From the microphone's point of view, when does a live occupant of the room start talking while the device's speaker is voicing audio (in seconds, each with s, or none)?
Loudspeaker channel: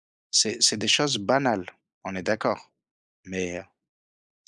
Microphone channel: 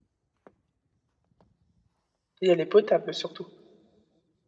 2.4 s